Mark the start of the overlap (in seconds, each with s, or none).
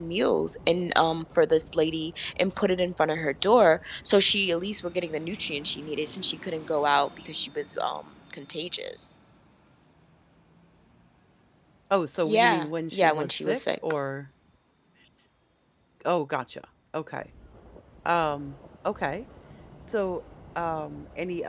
12.2 s